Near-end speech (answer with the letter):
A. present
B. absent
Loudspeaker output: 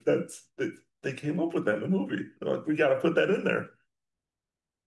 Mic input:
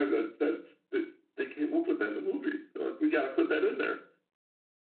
B